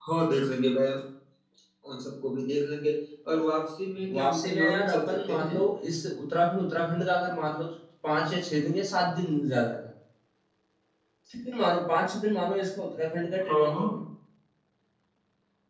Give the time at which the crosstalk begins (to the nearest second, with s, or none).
4 s